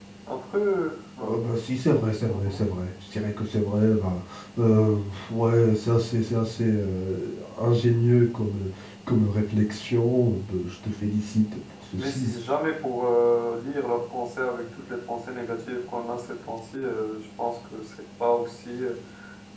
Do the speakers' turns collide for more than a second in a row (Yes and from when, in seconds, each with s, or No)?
No